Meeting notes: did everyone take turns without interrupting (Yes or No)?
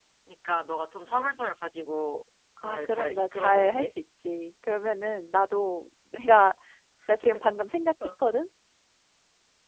No